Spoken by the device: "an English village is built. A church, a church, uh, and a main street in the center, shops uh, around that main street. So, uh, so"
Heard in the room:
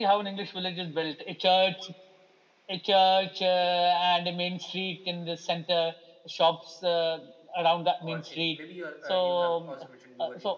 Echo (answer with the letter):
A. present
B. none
A